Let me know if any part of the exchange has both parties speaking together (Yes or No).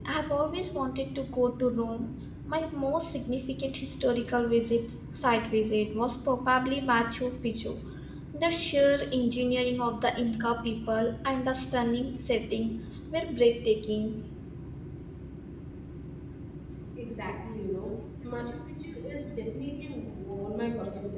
No